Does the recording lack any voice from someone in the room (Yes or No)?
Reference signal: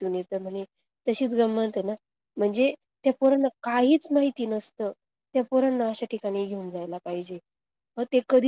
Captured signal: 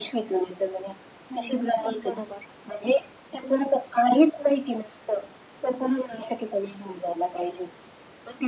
No